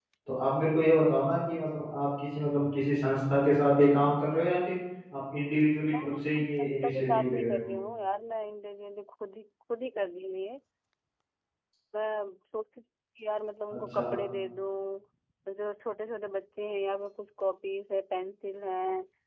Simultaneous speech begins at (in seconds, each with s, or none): 5.9 s